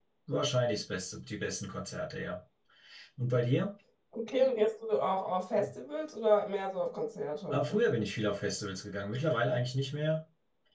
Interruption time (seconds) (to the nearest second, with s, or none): none